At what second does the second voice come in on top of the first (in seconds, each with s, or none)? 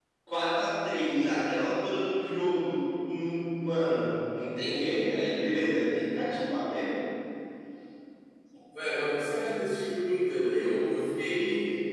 none